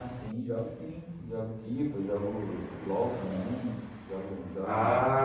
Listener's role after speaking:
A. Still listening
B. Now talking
B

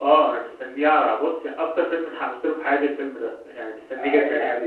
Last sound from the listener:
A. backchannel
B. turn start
B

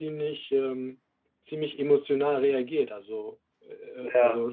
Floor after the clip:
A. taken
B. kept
B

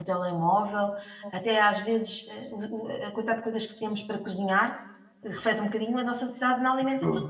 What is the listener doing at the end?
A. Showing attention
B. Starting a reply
A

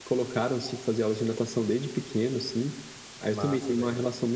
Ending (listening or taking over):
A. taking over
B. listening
B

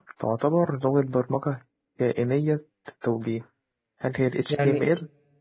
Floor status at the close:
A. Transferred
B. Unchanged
A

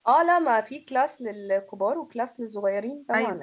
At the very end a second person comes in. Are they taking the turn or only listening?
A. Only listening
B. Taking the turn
B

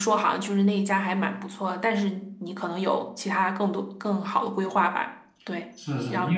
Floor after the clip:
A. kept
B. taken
B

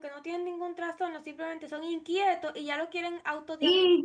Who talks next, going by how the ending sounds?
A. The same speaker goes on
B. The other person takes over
B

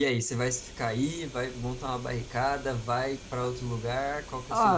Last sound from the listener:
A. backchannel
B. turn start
B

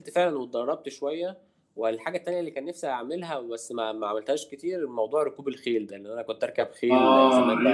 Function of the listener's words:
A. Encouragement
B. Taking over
B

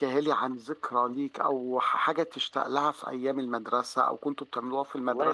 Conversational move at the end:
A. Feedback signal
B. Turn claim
B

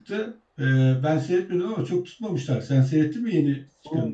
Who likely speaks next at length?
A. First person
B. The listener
B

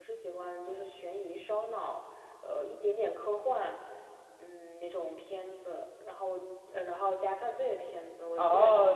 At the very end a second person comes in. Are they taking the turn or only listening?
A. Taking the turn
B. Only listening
A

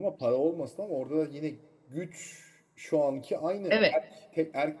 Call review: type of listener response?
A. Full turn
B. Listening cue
B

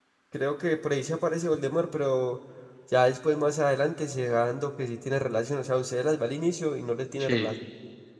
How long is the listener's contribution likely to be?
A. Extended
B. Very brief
B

